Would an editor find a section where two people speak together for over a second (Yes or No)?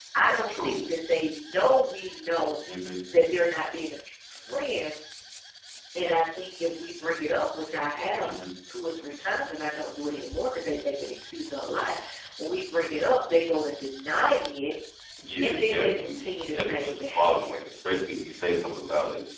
Yes